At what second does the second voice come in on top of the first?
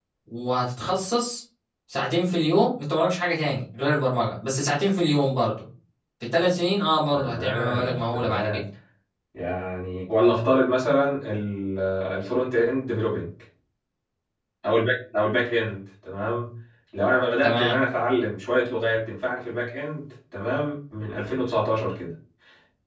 7 s

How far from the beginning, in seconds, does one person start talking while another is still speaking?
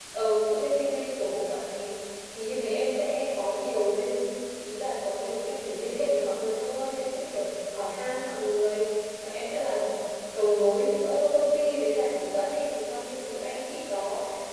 none

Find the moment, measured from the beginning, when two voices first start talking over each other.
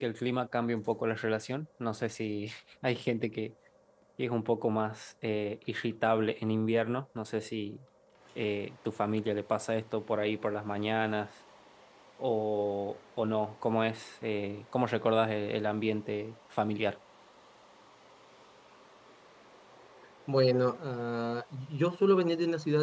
none

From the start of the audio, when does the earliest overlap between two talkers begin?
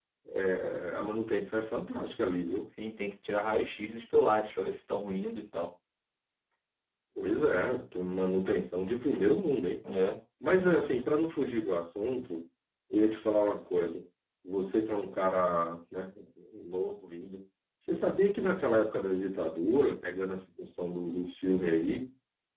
none

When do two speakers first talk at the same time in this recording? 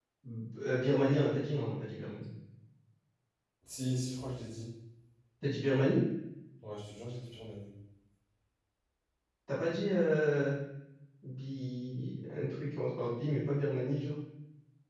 none

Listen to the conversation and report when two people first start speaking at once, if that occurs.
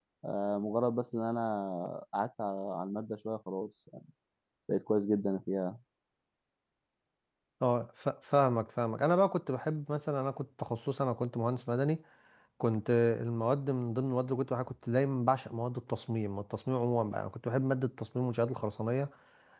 none

